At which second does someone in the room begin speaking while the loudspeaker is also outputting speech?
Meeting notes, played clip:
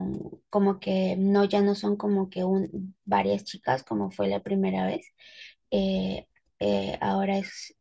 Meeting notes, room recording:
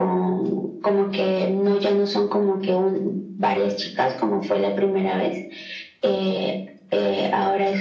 none

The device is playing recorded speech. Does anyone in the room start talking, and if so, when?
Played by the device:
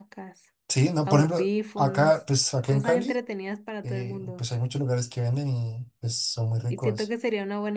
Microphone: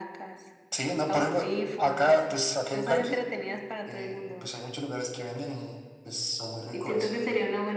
none

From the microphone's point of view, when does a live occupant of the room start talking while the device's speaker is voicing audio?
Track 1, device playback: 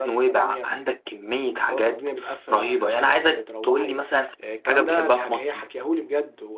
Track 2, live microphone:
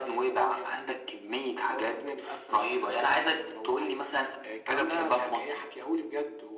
none

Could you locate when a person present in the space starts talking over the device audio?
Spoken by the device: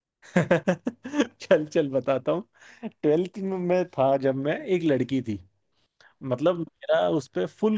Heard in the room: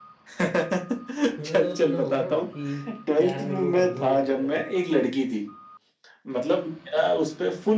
1.4 s

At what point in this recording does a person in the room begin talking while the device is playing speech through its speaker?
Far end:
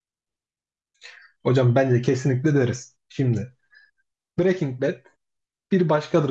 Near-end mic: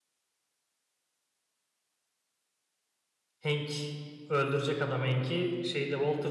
3.4 s

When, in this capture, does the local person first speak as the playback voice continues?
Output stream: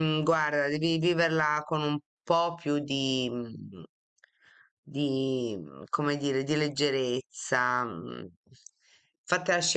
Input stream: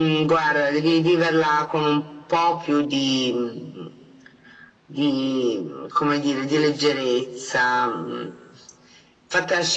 none

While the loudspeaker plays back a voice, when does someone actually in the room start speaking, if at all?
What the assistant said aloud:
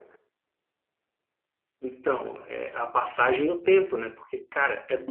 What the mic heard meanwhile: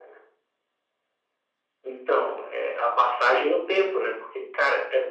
none

